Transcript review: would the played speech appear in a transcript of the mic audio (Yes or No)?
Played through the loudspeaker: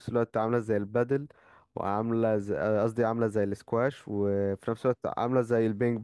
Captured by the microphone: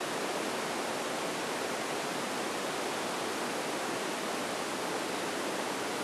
No